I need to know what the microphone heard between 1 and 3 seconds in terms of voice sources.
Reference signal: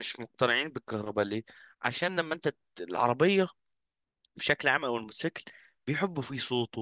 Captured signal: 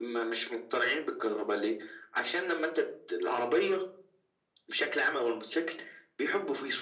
echo only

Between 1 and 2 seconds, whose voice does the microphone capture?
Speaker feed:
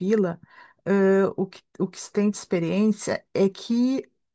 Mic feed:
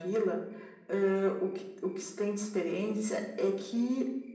echo only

